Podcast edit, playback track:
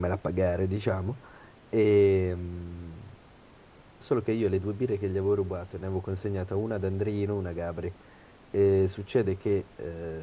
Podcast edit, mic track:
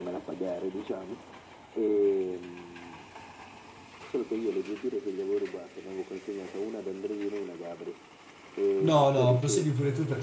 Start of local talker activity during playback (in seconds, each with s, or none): 8.8 s